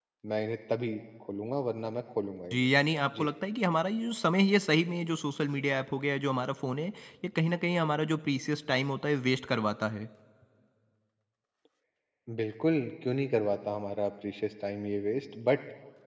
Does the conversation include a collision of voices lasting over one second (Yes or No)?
No